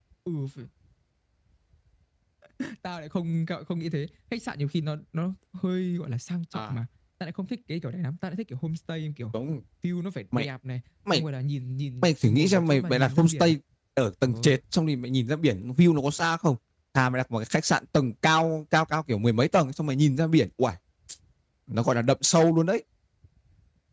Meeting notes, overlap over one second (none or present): present